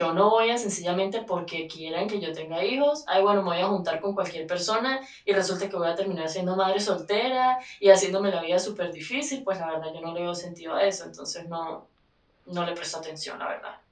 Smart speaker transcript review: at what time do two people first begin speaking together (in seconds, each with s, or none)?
none